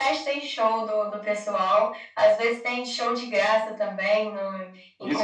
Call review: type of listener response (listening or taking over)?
taking over